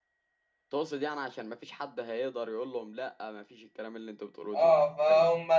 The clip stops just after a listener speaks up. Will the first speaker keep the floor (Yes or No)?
No